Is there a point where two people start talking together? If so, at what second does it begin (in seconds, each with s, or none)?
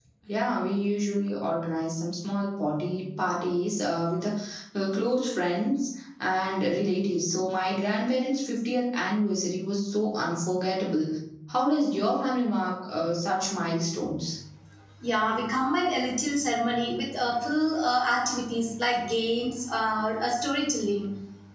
none